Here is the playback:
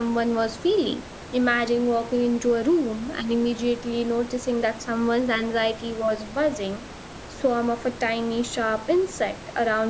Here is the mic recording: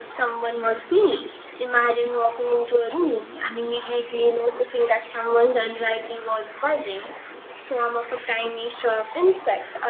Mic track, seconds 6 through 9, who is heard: echo only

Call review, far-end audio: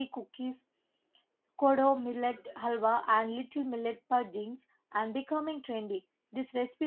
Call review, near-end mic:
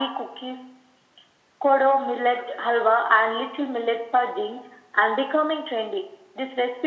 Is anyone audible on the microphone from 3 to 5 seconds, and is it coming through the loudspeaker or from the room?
echo only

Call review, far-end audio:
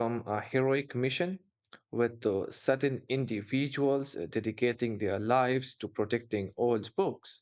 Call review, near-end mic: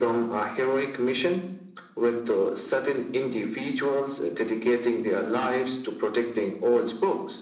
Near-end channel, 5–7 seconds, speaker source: echo only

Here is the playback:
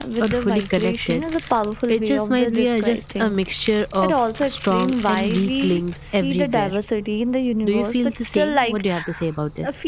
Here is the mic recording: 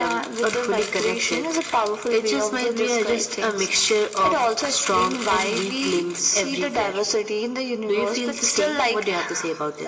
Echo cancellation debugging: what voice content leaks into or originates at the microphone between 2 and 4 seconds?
echo only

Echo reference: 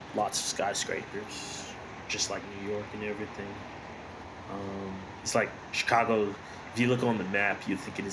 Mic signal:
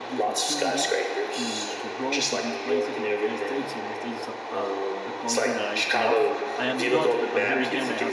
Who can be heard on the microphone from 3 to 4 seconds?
both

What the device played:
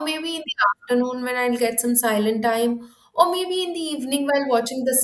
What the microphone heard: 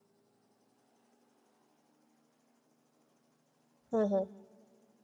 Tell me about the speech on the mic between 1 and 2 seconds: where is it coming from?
neither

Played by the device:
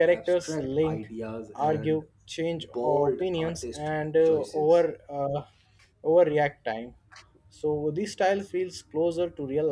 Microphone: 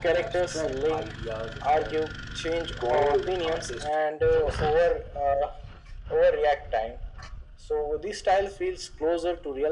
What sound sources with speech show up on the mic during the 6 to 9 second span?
echo only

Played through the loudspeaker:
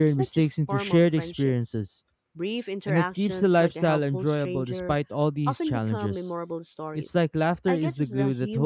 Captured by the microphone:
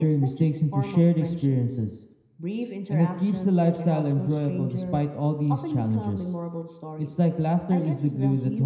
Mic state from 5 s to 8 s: echo only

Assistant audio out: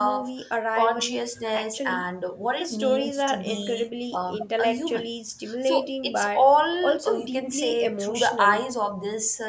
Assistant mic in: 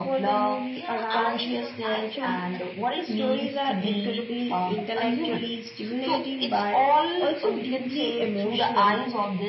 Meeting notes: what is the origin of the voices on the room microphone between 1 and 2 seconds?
both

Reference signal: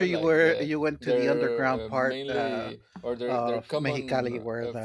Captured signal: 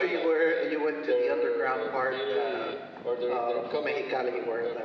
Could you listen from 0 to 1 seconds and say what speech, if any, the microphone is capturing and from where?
echo only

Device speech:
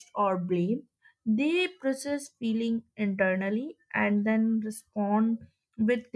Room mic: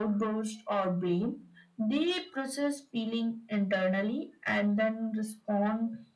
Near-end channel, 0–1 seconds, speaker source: echo only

